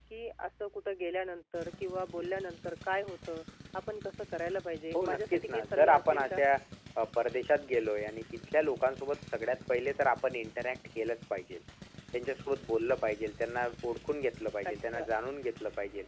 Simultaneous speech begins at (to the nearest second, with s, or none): 5 s